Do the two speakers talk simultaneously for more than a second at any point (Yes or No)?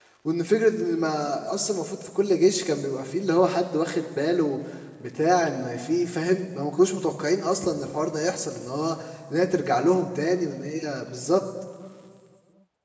No